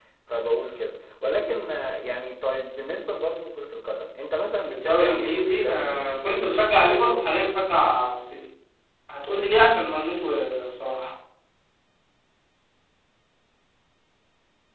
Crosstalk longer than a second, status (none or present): present